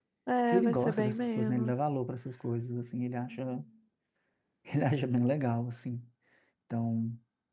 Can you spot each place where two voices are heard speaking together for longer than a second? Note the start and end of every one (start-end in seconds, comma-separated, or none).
0.5-1.8